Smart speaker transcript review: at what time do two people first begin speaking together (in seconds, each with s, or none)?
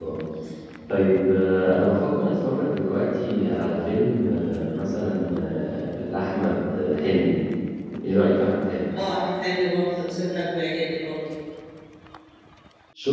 none